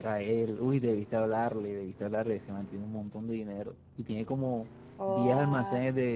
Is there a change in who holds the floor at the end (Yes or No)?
No